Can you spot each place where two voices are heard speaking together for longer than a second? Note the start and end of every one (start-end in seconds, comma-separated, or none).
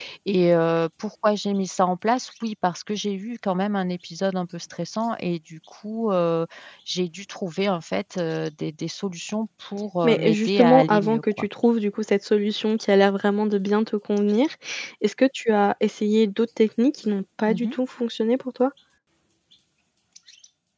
10.0-11.5